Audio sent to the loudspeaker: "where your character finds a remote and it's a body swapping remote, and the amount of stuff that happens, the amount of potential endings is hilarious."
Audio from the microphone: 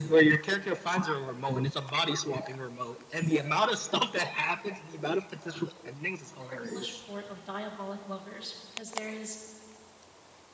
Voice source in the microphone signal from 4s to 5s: echo only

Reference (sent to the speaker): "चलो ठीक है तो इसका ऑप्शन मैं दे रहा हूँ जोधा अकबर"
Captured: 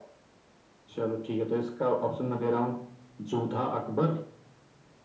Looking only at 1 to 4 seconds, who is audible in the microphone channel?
echo only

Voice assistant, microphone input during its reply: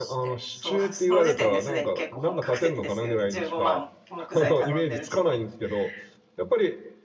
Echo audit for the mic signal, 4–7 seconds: both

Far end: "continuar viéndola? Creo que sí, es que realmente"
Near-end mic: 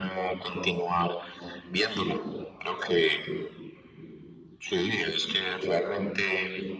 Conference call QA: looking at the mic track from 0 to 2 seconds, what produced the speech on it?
echo only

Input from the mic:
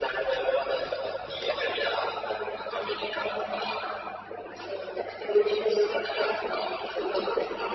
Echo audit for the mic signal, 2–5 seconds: echo only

